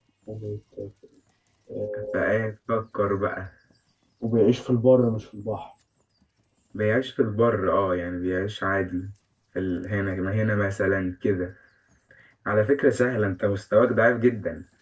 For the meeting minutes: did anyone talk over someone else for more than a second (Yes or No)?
No